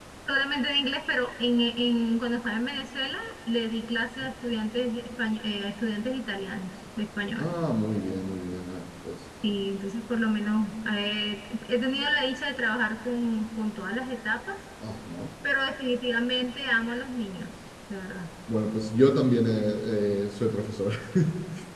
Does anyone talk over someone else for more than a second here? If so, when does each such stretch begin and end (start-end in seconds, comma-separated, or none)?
none